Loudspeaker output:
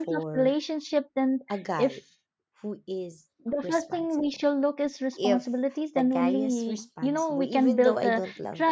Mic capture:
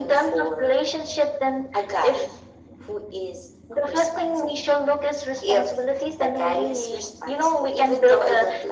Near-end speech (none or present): none